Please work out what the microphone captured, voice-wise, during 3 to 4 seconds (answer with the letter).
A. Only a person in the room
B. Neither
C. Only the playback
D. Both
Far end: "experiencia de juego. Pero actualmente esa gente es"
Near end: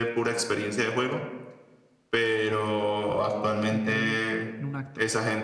D